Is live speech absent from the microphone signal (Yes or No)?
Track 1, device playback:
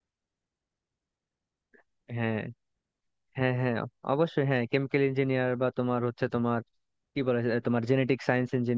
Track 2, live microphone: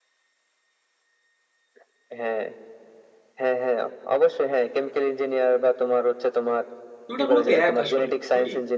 No